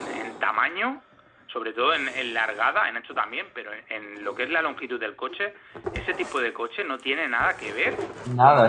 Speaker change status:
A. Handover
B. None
A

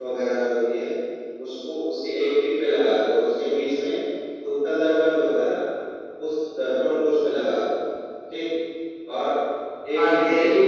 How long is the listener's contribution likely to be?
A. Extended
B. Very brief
A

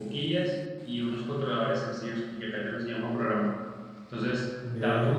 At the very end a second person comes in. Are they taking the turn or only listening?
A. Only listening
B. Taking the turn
A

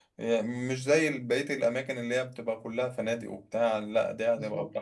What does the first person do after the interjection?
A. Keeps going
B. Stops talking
B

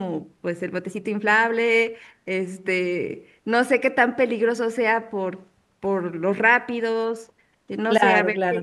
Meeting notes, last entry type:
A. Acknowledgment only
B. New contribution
B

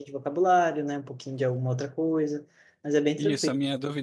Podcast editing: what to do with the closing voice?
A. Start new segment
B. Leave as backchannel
A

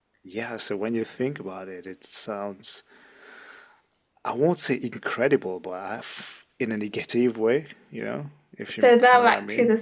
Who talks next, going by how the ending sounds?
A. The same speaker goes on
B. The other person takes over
B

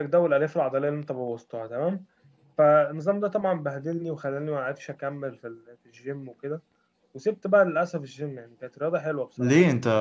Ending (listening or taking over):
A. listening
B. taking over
B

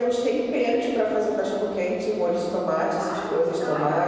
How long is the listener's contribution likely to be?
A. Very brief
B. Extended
B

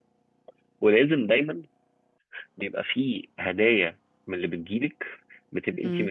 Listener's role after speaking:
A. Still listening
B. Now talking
A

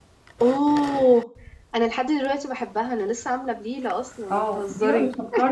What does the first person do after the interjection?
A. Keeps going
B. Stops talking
B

